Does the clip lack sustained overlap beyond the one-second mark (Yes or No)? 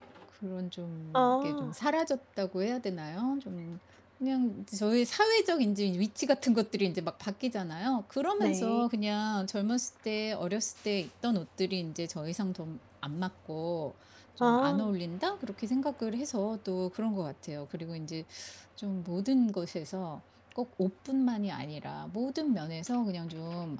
Yes